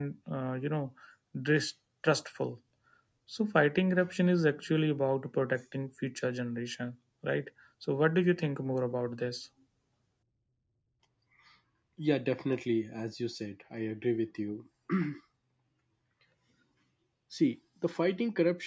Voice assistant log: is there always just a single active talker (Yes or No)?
Yes